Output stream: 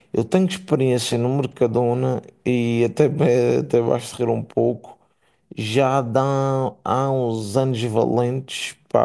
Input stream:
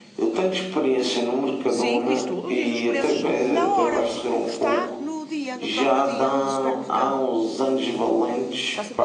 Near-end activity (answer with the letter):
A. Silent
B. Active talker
B